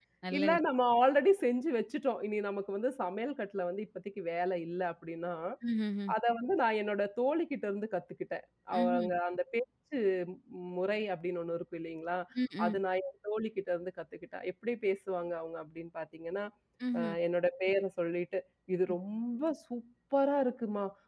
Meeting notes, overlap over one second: none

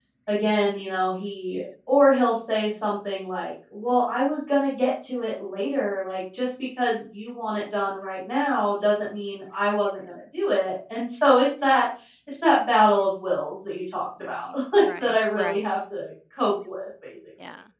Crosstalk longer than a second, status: present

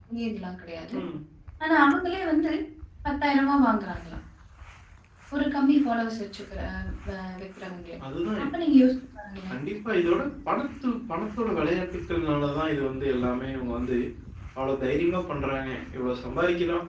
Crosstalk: none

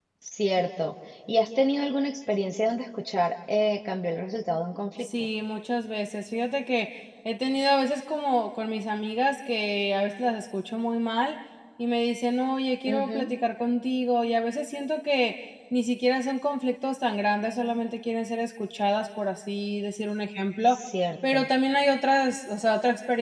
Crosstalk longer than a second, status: none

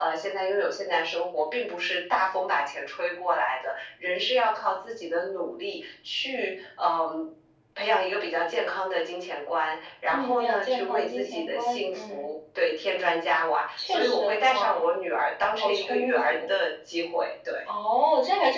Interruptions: present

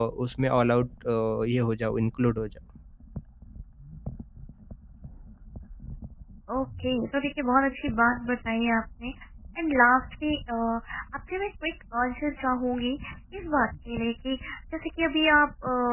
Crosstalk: none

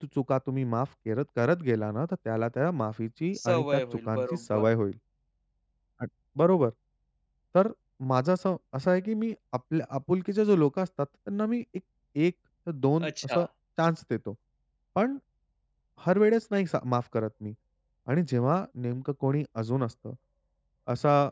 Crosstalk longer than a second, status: present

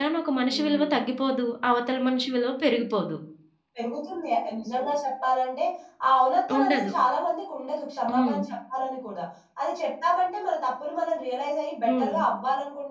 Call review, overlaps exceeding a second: none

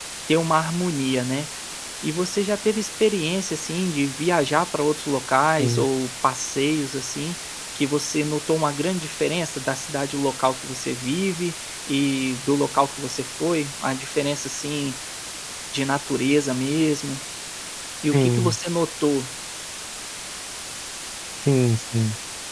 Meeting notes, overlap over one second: none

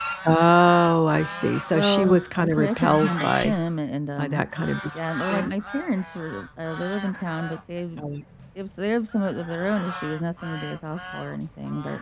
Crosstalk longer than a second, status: present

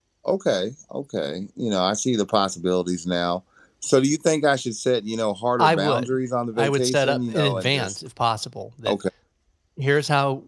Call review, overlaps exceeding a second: present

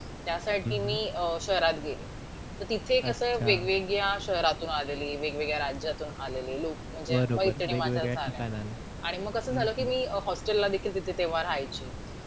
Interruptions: present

